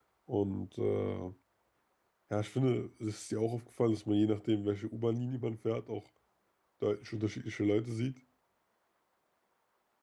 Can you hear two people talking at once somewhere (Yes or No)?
No